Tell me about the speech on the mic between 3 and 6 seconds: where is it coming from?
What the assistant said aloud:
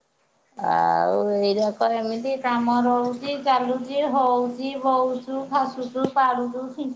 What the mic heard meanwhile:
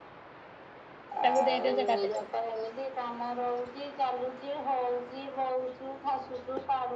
echo only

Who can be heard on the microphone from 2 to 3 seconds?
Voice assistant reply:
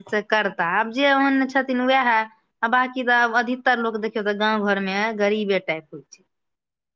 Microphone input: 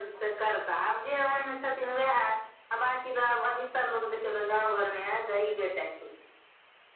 echo only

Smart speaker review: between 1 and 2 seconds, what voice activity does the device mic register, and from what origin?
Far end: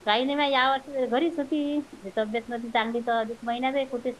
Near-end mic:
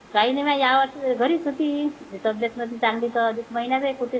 echo only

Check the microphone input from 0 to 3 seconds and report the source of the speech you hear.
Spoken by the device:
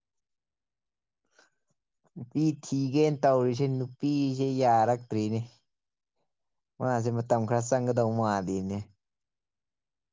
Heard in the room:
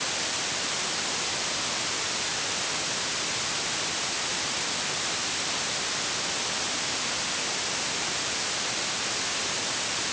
neither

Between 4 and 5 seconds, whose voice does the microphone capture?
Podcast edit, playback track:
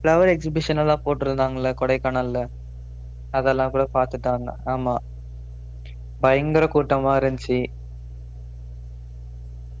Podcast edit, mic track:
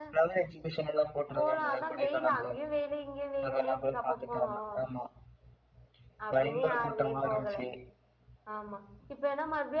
both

